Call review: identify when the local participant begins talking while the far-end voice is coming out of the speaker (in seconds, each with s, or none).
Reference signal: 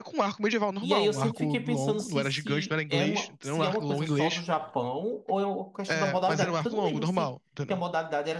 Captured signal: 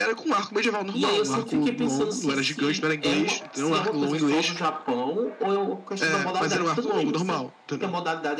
none